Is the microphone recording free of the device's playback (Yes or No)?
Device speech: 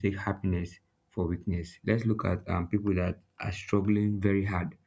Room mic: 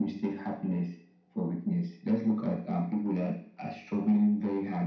No